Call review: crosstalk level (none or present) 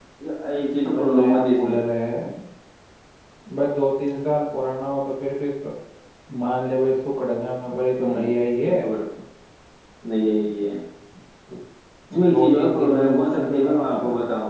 present